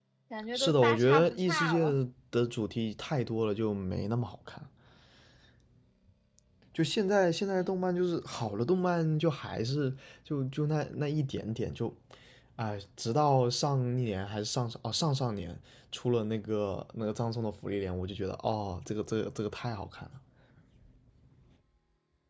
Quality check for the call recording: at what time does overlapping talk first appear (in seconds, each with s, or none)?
0.5 s